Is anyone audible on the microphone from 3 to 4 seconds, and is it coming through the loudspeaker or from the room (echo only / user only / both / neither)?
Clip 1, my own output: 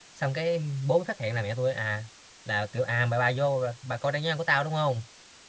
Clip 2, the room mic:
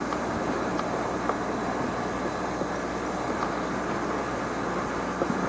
neither